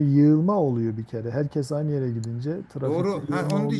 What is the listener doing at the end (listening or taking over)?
taking over